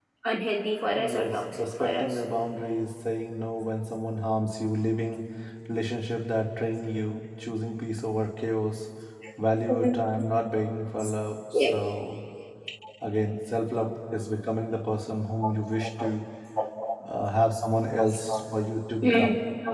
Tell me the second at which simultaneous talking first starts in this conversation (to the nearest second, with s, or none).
1 s